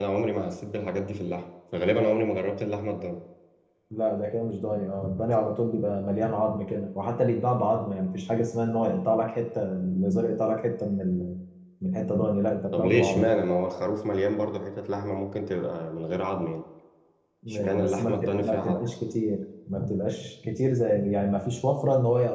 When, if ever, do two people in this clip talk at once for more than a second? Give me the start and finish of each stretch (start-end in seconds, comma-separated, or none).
17.5-18.8